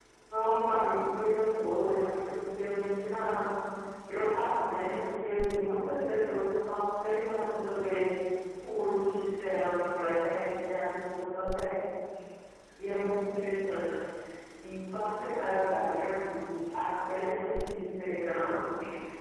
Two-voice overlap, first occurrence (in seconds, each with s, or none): none